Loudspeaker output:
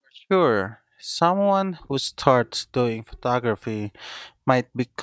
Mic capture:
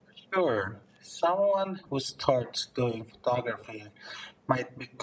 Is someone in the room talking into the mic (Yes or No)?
No